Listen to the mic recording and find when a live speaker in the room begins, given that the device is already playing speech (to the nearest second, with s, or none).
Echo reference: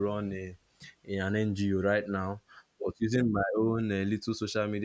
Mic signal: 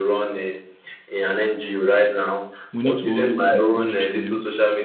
3 s